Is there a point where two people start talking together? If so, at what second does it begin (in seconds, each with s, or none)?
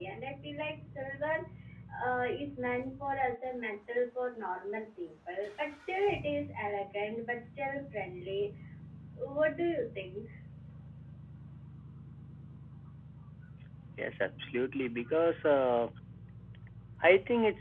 none